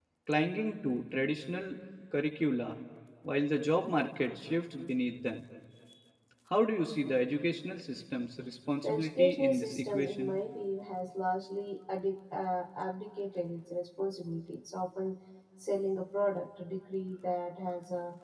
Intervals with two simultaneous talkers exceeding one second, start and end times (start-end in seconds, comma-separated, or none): 8.8-10.4